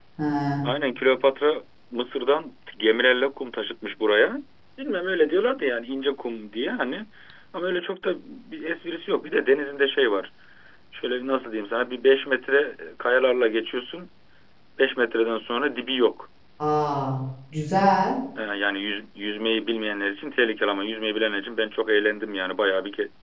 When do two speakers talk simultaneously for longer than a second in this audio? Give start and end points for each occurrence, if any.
none

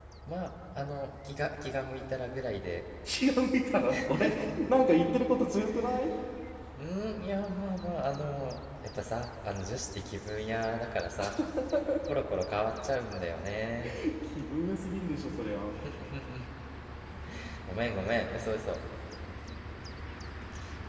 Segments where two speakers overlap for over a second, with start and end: none

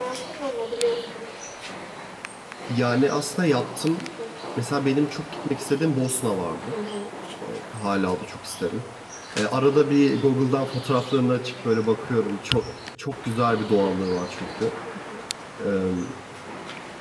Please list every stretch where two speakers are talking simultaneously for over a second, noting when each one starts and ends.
none

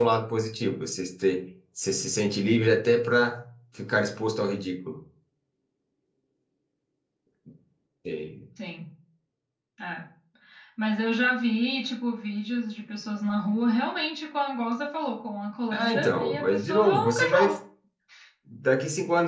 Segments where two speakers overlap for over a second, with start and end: 15.7-17.5

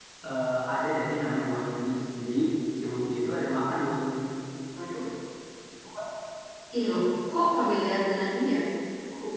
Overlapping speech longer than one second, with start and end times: none

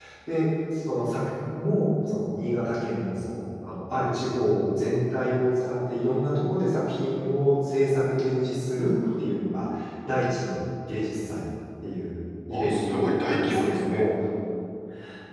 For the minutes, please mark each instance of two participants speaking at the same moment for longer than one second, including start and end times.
12.5-14.0

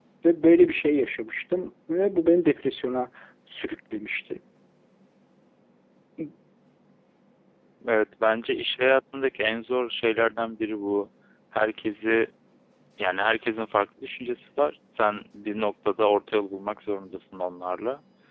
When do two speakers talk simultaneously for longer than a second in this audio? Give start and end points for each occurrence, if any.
none

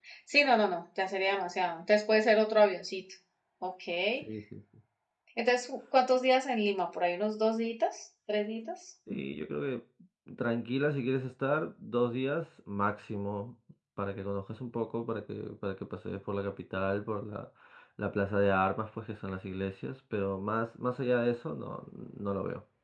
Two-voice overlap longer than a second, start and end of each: none

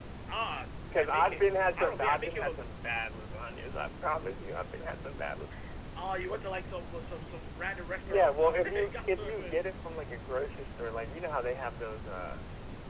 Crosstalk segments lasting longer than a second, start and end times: 0.9-2.6, 8.1-9.3

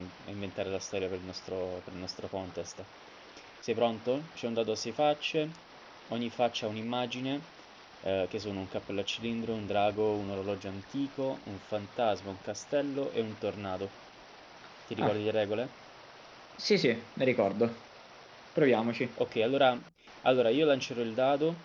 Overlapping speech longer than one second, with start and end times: none

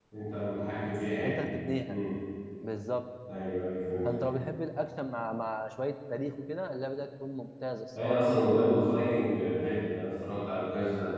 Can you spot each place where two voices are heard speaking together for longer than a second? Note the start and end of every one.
none

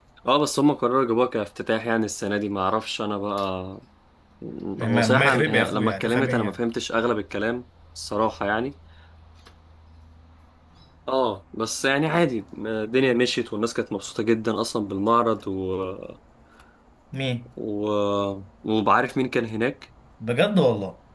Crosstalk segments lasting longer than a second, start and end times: 5.1-6.6

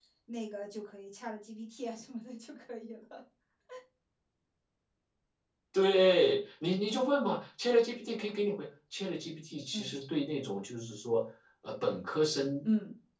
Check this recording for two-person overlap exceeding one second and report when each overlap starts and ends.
none

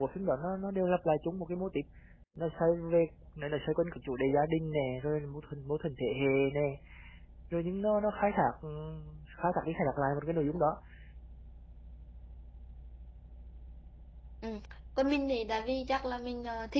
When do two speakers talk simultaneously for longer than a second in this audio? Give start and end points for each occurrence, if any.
none

